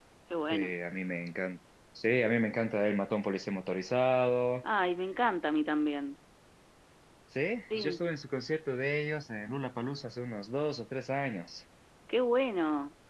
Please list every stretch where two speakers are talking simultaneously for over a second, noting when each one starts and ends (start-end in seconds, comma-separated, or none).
none